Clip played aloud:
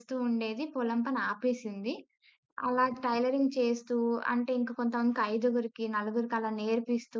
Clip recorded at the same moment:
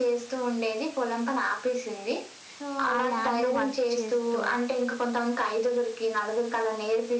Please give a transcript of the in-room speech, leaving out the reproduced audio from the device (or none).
సో, ఆ ల్యాండులో వర్క్ చేస్తూ,